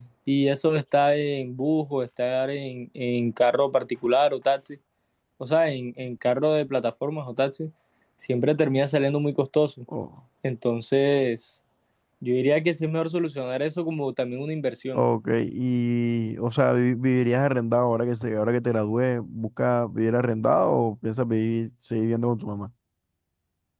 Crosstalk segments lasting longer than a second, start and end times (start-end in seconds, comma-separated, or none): none